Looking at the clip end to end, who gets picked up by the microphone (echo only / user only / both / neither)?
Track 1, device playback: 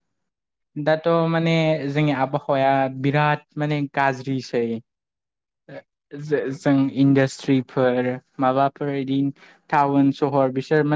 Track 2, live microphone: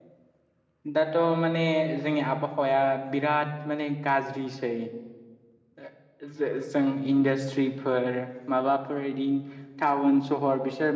echo only